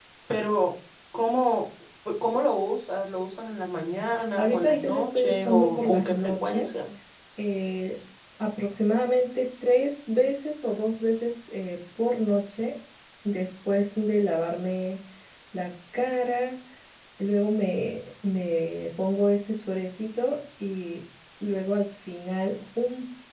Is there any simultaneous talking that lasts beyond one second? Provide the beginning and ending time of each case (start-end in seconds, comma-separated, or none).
4.4-6.7